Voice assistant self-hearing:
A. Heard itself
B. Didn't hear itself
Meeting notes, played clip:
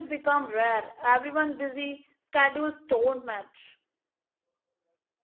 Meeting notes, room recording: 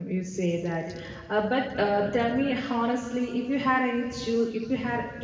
B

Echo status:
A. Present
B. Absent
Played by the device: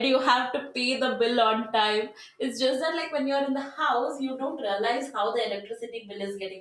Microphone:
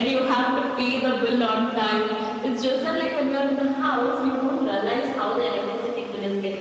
A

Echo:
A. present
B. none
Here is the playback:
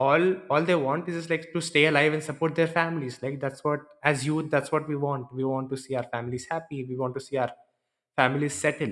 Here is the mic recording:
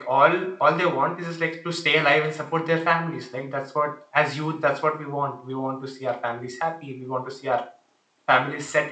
A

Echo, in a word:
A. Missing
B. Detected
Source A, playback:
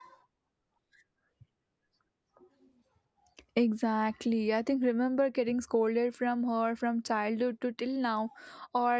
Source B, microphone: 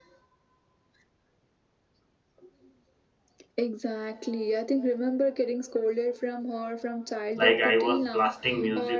B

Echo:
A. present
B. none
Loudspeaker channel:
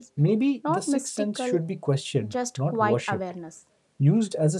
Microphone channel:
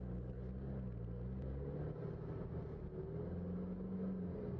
B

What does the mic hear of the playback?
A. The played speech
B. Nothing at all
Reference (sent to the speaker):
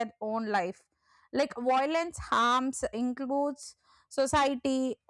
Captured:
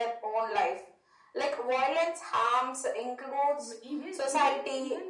A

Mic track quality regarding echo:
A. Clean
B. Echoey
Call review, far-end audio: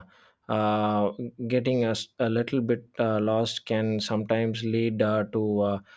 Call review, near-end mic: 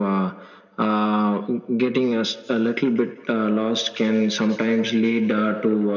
B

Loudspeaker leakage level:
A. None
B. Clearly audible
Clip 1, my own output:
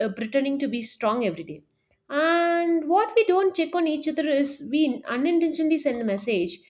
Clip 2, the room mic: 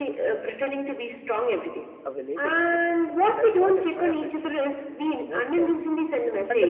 B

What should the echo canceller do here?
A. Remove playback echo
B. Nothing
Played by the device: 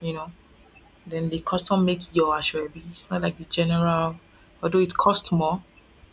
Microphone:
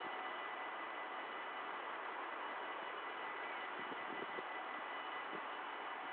B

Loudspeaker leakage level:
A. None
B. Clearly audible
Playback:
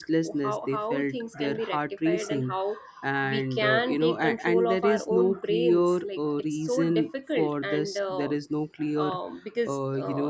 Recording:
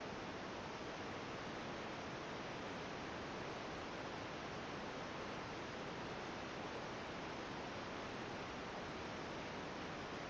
A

